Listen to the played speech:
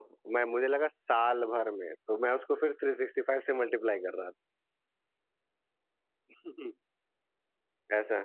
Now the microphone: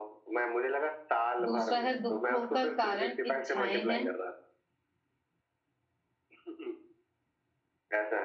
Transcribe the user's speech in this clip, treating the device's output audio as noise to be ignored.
दूसरा है दुखों का कारण इच्छाएं हैं

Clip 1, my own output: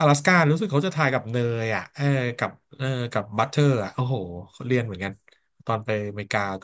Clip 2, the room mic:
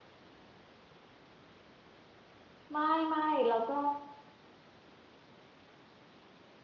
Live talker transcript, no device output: ไม่ไม่แล้วก็

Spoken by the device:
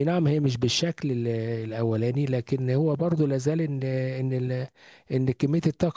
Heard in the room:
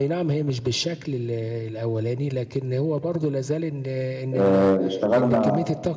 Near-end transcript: آه، اشتغلنا

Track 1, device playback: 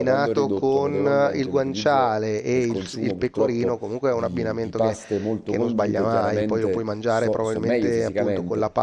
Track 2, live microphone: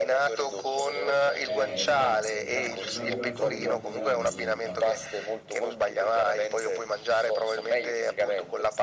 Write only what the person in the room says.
Eh, esatto, esatto, è una privazione troppo grande solo 80.

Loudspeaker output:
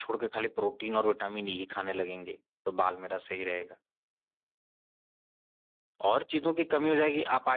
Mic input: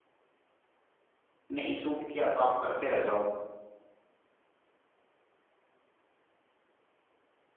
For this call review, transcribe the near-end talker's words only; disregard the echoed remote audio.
नहीं सूट किया तो आप करते रह जाओ

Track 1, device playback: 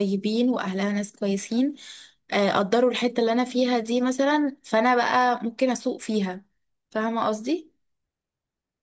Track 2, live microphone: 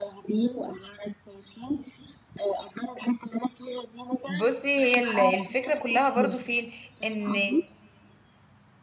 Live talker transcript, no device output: بصي هي ال- الفكرة كلها برضو فين ان

